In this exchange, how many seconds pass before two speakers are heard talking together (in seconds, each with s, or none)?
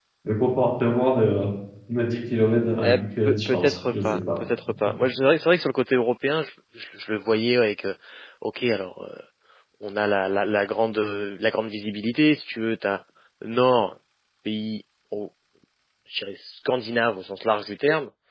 2.8 s